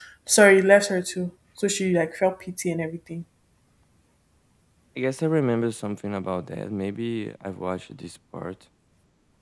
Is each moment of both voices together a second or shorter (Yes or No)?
Yes